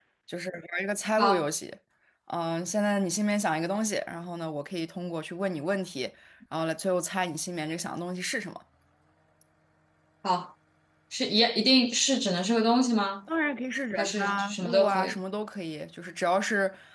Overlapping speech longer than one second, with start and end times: 14.0-15.2

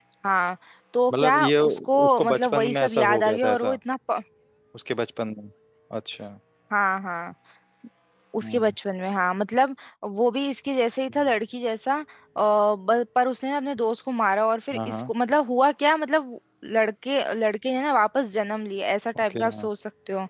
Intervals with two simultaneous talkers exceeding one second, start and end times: 1.1-3.8

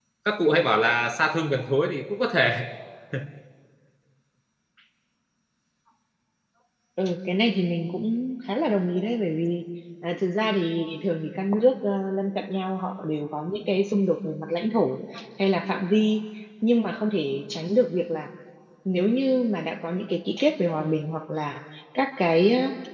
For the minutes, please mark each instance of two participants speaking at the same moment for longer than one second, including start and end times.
none

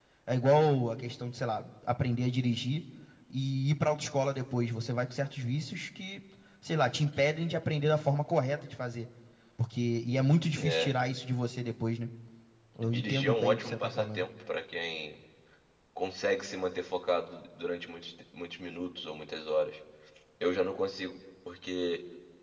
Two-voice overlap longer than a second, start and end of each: 12.9-14.2

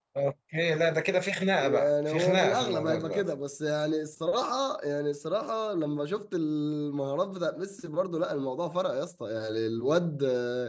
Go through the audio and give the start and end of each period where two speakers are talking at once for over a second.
1.6-3.2

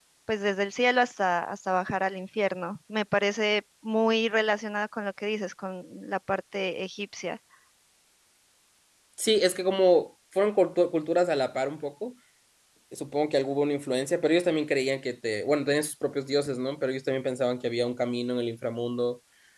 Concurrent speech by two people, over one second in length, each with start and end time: none

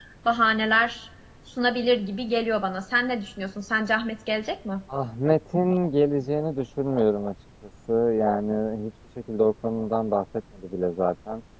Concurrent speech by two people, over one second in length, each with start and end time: none

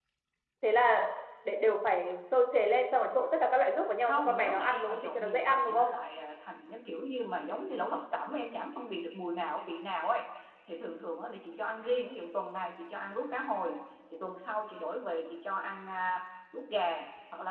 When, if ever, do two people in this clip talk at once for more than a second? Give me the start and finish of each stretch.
4.0-5.9

